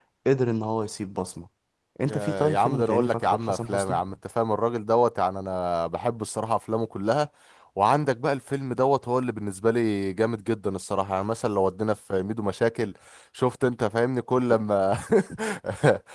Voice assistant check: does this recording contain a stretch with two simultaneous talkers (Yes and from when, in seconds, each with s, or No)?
Yes, from 2.0 s